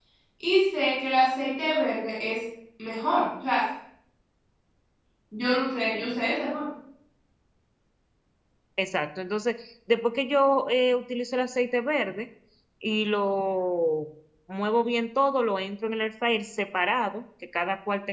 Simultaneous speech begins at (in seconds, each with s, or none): none